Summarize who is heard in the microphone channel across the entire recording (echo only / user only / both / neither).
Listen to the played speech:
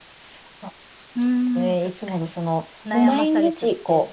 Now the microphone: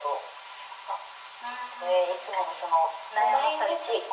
echo only